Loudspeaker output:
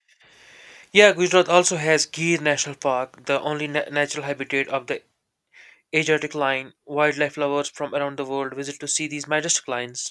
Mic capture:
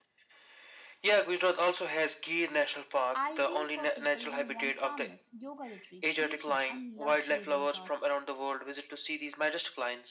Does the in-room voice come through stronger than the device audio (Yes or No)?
No